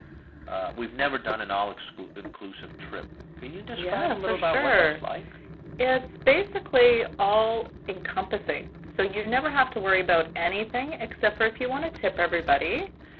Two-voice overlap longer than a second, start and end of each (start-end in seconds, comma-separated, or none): 3.8-5.0